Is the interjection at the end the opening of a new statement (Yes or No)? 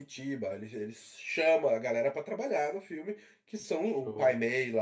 No